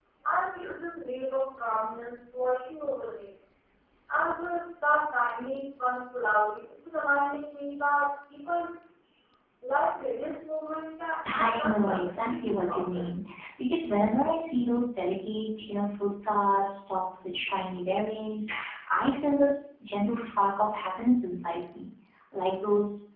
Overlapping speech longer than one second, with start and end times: 11.3-13.0

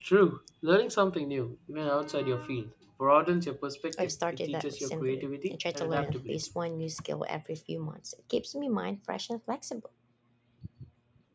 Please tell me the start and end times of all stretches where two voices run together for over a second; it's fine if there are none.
4.0-6.4

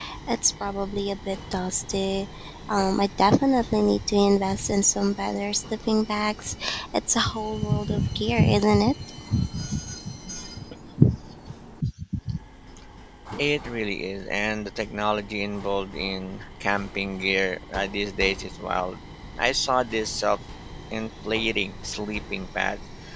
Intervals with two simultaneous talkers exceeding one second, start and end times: none

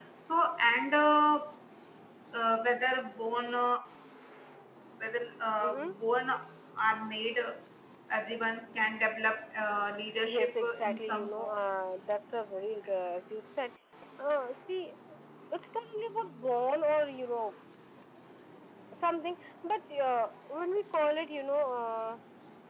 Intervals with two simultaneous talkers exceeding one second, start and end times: 10.3-11.5

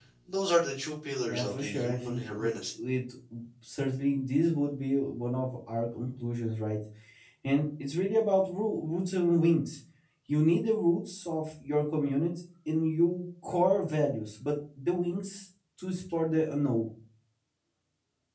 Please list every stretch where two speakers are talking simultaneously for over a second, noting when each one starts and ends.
1.3-2.5

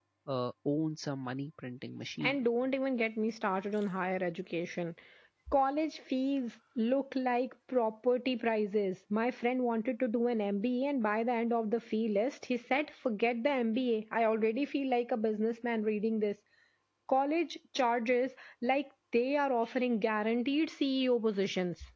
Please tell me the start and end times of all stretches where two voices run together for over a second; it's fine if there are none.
none

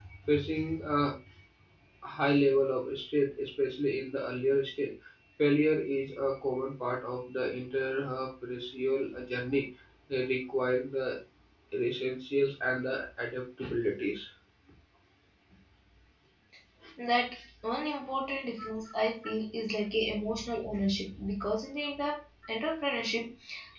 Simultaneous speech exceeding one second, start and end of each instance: none

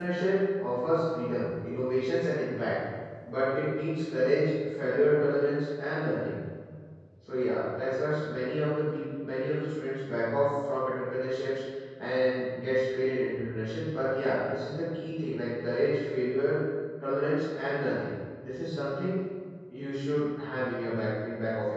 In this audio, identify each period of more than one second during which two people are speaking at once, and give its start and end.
none

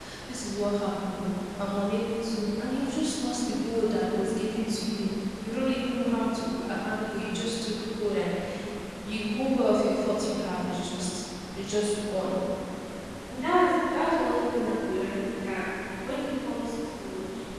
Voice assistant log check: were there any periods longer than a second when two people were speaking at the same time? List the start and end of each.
none

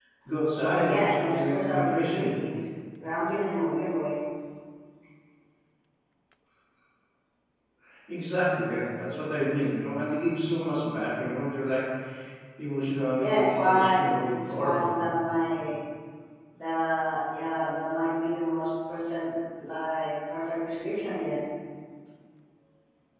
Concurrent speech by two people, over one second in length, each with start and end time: 0.6-2.4, 13.2-15.1

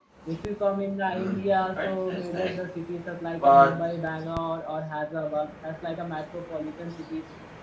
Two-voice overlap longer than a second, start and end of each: 1.1-2.5

